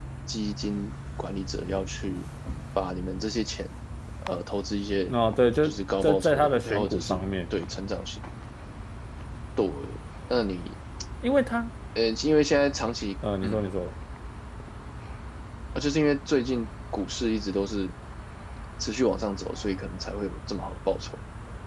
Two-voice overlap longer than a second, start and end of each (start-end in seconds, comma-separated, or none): 6.0-7.2